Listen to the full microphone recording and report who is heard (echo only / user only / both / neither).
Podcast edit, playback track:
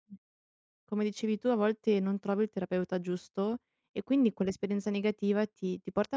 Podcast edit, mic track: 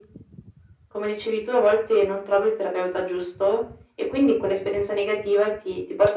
echo only